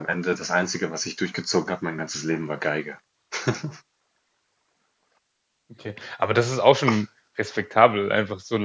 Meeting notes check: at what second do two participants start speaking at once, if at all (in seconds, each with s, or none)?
none